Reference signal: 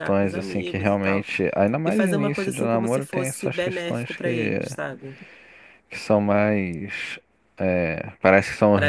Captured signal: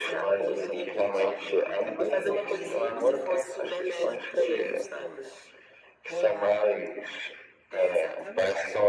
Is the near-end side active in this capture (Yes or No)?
Yes